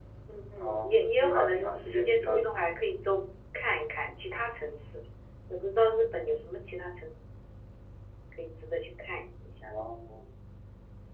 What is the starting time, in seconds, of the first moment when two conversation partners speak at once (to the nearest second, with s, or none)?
1 s